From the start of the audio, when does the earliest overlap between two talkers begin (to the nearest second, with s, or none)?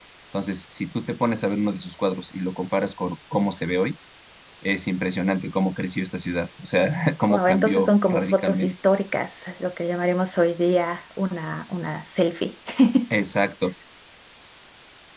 7 s